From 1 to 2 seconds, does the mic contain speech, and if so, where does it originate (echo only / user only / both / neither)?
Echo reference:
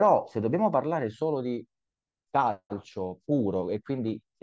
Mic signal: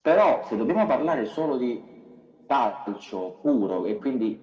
echo only